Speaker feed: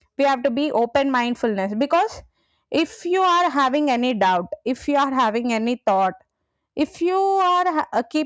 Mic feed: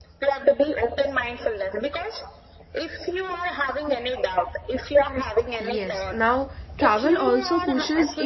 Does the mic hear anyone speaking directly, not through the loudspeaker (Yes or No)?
Yes